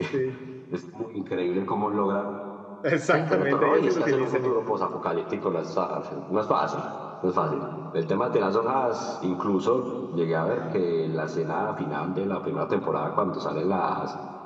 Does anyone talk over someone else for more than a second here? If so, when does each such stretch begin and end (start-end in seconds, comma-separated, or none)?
3.1-4.7